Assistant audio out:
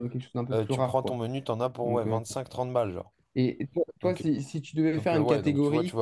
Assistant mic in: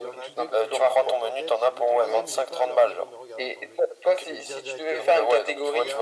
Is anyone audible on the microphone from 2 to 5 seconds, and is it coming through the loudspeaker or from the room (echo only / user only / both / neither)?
both